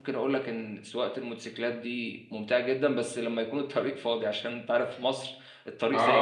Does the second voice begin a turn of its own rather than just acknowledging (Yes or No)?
Yes